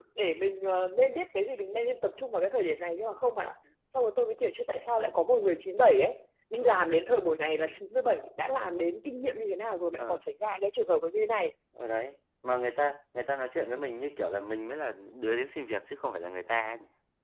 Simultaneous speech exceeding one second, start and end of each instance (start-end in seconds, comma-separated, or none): none